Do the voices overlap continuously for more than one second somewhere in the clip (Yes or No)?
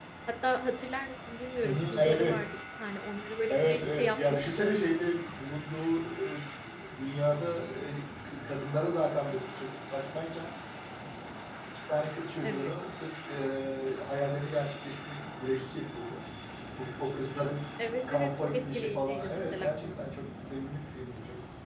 Yes